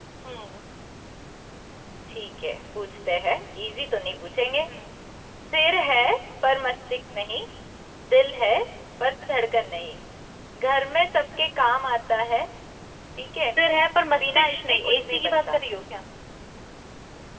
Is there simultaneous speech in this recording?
Yes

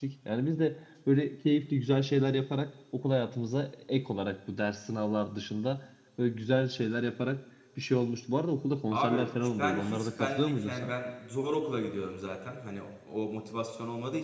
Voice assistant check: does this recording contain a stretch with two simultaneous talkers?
Yes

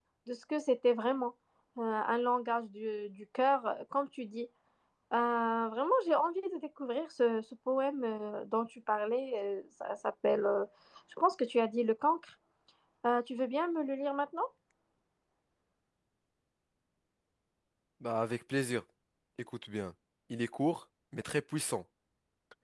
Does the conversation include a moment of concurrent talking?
No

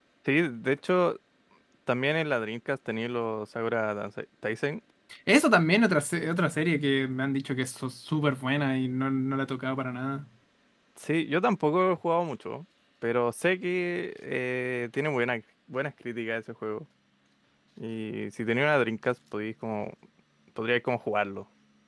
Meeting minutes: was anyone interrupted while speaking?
No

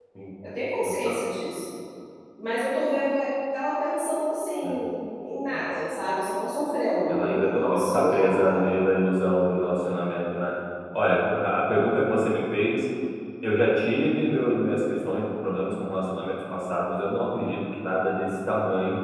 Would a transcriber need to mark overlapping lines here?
Yes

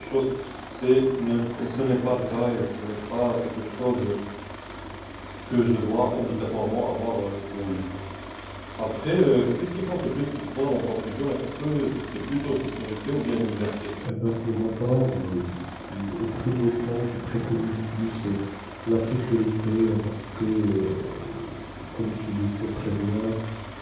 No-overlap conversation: Yes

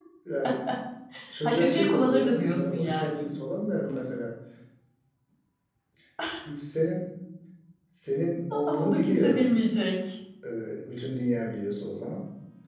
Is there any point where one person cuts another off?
Yes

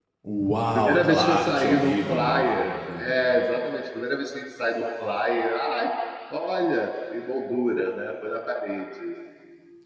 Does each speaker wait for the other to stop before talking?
No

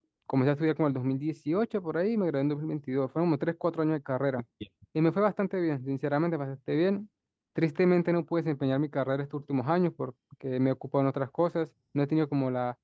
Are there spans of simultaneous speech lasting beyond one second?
No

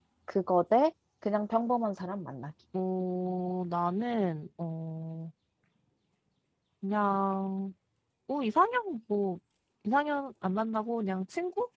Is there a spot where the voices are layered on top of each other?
No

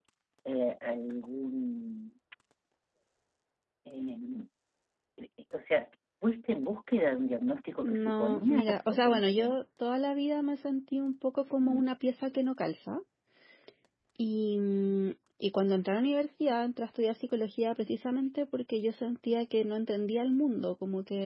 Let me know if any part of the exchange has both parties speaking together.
Yes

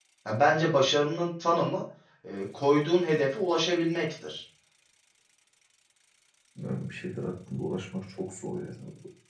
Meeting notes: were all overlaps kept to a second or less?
Yes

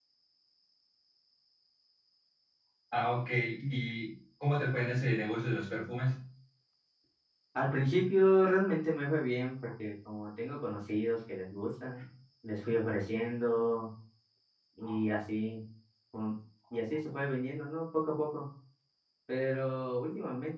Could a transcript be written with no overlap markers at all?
Yes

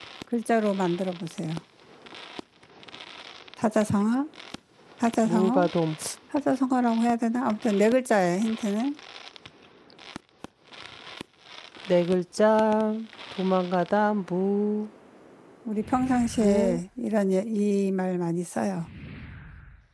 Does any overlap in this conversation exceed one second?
No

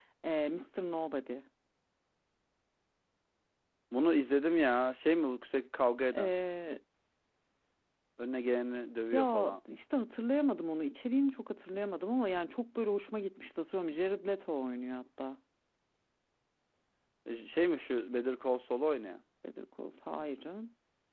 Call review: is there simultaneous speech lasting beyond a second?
No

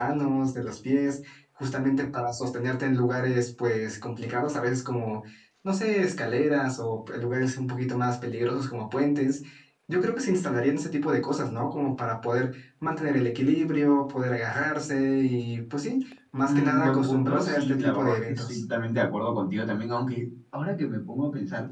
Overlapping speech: Yes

